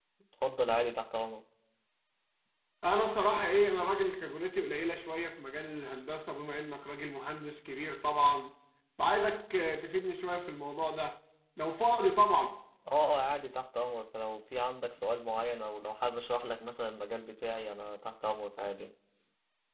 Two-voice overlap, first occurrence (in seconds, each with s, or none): none